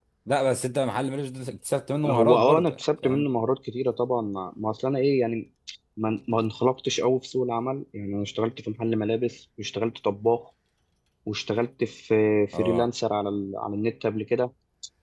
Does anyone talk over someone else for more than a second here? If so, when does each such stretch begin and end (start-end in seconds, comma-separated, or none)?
2.0-3.3